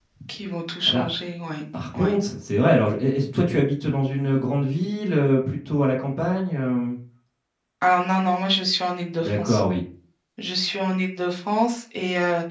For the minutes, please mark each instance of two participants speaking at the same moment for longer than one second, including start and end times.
none

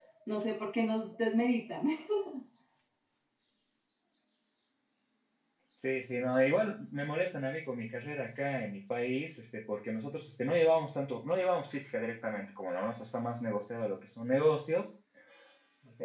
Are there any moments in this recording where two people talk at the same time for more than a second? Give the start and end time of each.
none

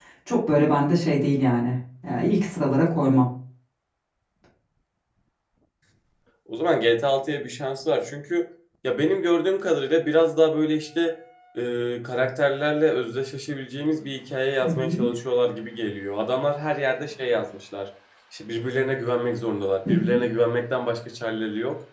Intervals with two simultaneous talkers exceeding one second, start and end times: none

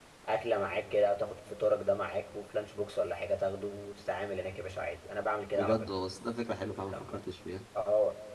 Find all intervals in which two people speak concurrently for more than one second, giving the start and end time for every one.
none

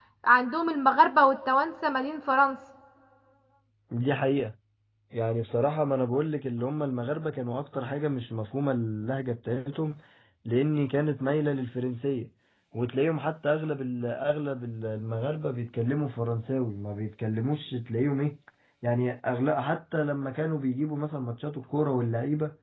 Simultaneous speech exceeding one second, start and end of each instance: none

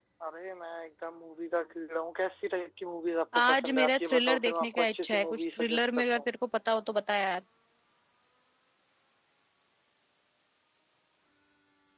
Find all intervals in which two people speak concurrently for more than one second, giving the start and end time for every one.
3.4-6.2

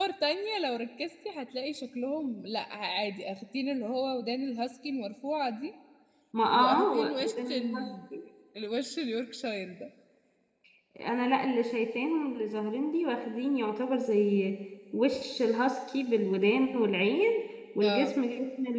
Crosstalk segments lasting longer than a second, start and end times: 6.5-7.9

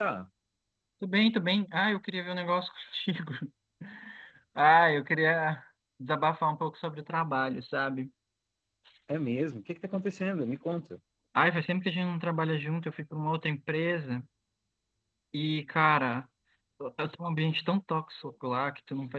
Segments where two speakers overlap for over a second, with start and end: none

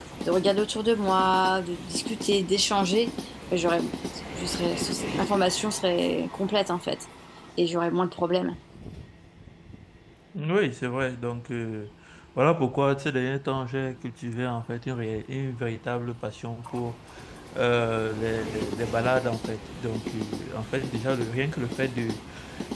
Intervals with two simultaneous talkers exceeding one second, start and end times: none

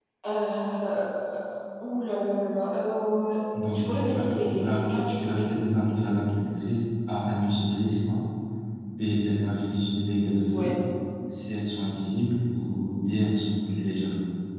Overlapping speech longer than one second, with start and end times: 3.7-5.4

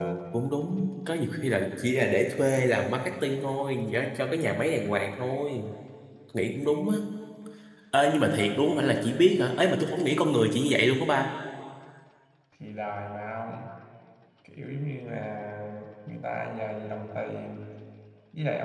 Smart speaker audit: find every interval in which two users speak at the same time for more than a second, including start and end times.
none

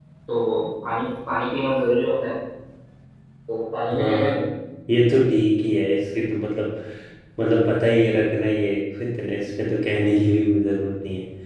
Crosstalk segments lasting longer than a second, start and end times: none

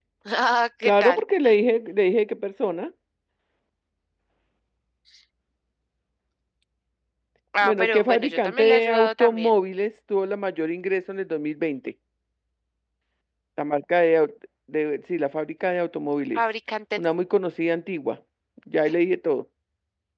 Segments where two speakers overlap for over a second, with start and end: 7.6-9.5

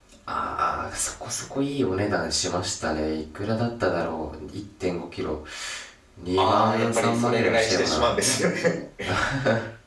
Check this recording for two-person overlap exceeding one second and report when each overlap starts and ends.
6.4-8.1

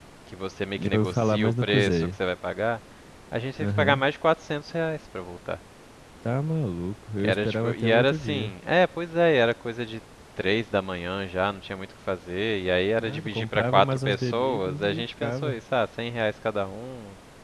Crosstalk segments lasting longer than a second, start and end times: 0.8-2.1, 7.2-8.5, 13.0-15.6

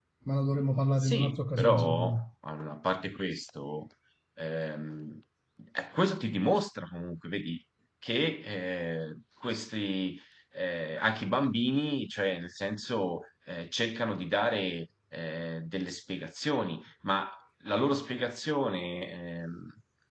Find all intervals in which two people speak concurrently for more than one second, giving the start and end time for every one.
1.0-2.2

